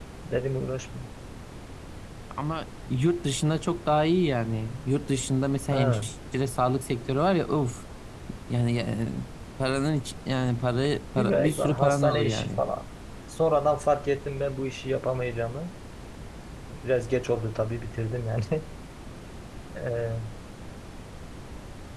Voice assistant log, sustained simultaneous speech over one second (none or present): present